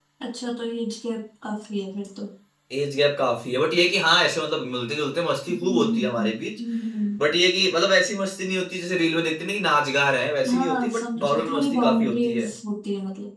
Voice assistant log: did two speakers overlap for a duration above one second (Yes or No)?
Yes